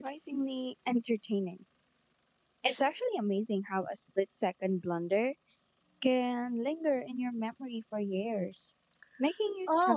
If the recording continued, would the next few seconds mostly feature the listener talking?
Yes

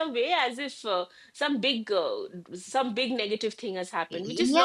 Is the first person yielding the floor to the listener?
Yes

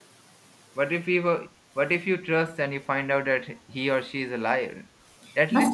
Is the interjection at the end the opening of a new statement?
Yes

